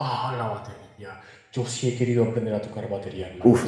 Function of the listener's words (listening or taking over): taking over